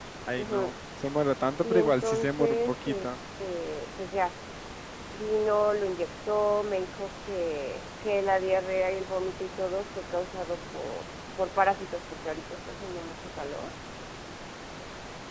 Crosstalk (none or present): present